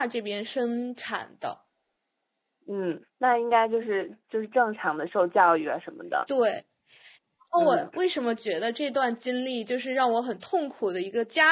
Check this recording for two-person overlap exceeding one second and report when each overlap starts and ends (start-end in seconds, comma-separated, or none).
none